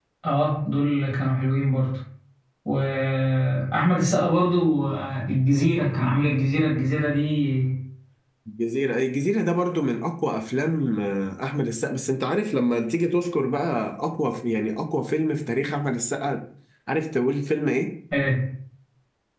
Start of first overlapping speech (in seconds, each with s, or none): none